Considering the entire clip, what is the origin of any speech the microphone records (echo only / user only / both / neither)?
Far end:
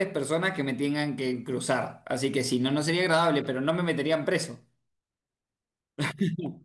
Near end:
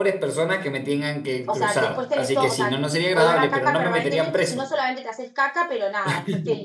both